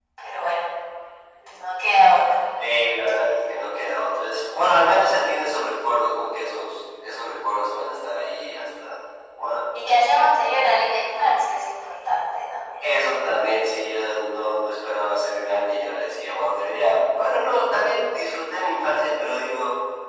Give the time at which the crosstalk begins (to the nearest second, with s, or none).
none